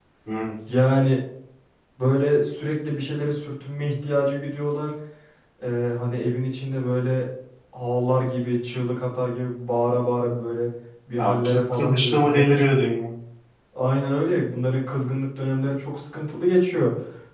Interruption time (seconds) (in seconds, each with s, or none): 11.2 s